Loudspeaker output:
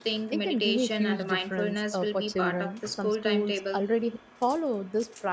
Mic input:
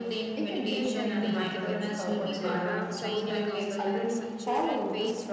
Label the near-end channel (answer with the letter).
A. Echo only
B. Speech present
B